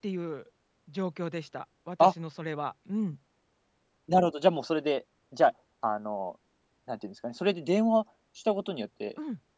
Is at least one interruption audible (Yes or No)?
No